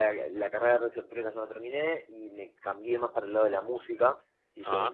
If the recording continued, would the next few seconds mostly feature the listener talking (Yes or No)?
No